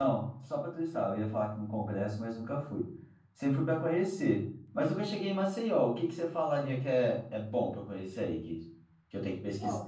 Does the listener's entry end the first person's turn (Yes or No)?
Yes